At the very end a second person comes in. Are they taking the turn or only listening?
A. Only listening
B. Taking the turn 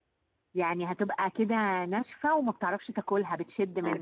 B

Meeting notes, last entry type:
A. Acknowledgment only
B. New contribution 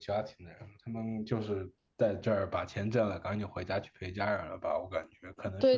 B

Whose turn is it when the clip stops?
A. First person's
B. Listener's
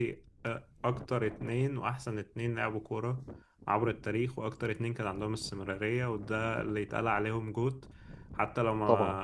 A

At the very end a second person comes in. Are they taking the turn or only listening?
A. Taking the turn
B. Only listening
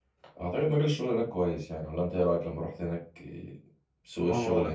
A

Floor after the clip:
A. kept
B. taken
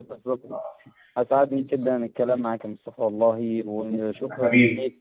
A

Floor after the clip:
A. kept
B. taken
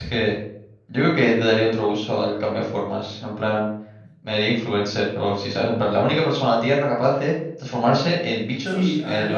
B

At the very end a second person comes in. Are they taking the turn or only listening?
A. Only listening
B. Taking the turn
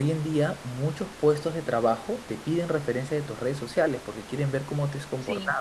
A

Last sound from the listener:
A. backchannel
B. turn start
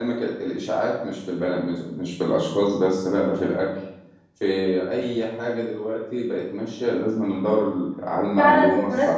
B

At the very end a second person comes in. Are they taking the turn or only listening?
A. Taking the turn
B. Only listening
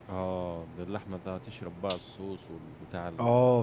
A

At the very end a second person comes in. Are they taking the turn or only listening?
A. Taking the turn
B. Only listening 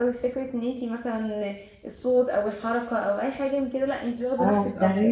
A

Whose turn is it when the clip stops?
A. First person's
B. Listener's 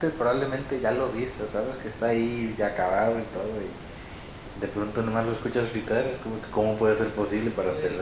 B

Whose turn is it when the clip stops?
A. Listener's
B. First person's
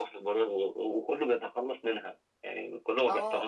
A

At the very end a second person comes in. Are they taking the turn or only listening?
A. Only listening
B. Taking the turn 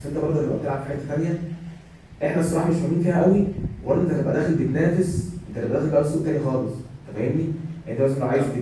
A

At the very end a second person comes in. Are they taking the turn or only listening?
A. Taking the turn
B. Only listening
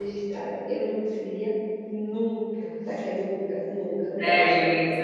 A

